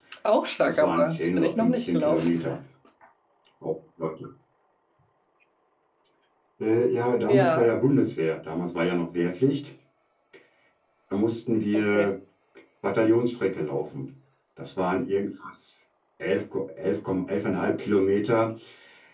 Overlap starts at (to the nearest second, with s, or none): 1 s